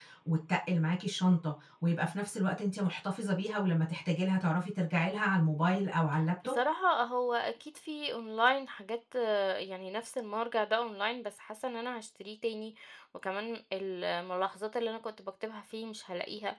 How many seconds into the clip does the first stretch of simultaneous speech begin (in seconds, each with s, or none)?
none